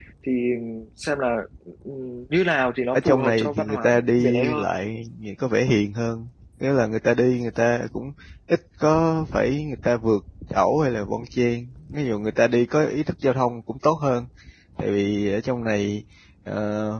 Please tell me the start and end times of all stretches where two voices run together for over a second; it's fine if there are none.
2.9-4.6

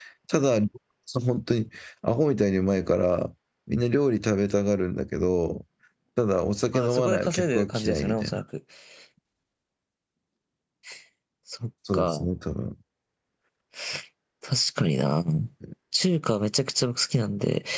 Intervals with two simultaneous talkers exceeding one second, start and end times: 6.7-8.4

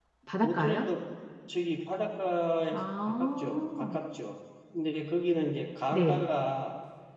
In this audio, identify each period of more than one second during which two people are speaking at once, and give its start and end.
2.7-4.0

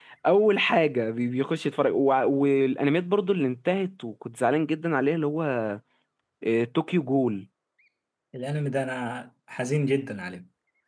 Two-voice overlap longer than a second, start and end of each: none

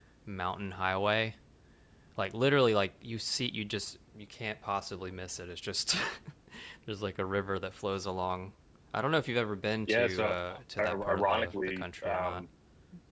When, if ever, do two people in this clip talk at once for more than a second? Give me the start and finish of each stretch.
9.9-12.4

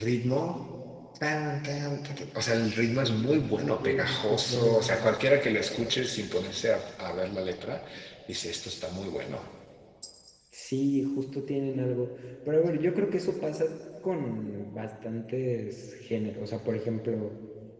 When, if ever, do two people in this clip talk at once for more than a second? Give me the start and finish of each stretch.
3.8-5.1

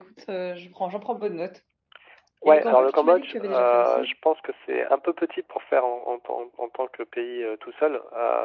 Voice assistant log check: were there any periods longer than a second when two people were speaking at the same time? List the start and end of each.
2.5-4.1

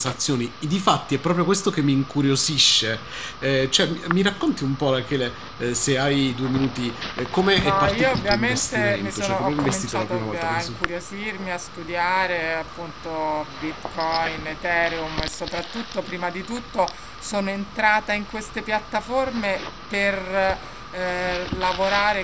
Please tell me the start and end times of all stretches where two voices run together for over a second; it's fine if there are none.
7.6-10.8

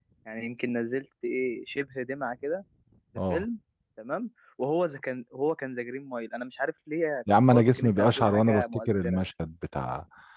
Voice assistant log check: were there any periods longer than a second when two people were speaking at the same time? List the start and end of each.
7.5-9.2

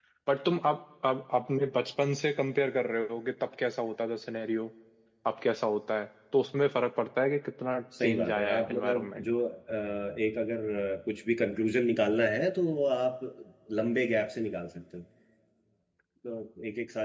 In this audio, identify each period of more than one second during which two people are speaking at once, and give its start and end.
8.0-9.2

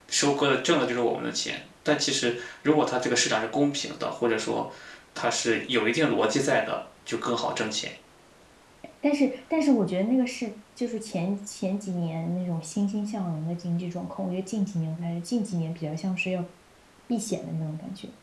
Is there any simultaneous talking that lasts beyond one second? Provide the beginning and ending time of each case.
none

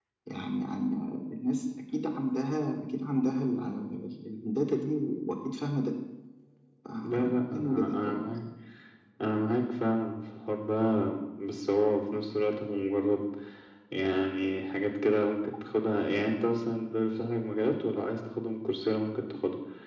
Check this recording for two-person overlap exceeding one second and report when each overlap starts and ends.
7.0-8.3

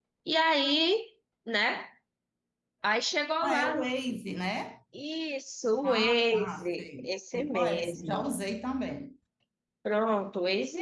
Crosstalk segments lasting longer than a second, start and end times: 5.8-8.2

